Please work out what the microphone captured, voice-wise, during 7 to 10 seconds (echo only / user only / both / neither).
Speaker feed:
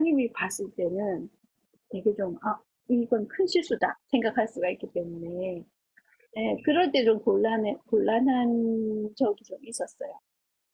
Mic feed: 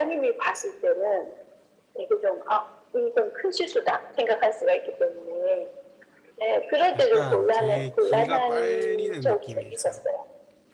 both